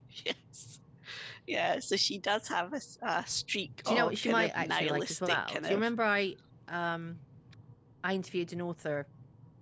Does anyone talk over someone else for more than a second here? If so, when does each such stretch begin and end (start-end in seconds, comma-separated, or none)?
3.8-5.9